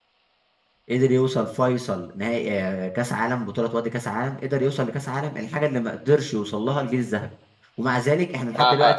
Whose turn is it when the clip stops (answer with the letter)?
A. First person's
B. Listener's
B